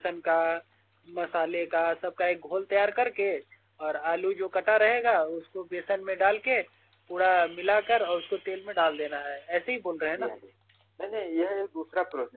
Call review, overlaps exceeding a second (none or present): none